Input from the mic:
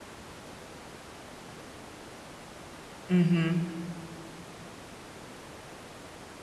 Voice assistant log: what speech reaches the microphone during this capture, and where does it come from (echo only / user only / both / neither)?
user only